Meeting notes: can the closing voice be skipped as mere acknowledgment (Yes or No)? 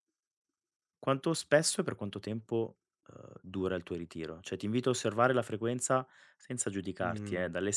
Yes